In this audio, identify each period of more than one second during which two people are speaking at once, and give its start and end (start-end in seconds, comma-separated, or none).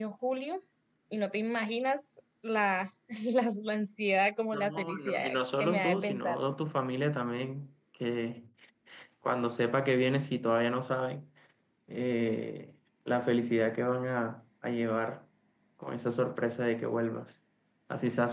4.5-6.4